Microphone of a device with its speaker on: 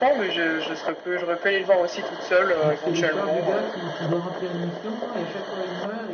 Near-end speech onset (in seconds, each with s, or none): 2.6 s